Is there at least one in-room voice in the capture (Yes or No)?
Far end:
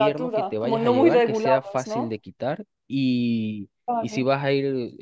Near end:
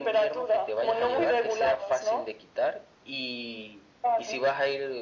No